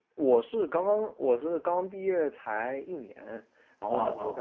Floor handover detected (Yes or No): No